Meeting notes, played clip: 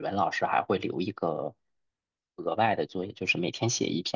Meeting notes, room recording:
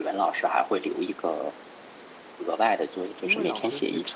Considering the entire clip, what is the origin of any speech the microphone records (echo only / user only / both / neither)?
both